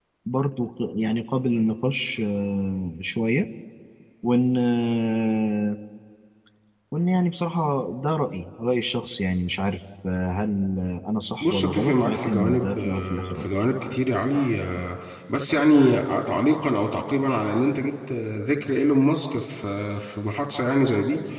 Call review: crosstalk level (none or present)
present